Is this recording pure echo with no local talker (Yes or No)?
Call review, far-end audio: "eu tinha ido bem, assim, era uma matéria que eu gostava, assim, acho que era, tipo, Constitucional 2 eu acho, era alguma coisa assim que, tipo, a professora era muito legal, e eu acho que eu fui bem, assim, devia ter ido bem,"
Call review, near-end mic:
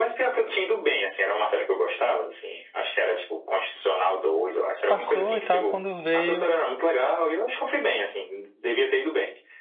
No